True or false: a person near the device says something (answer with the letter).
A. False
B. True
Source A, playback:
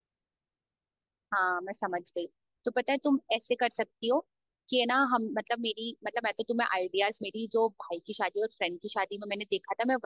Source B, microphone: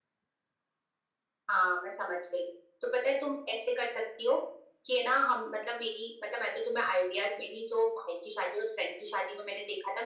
A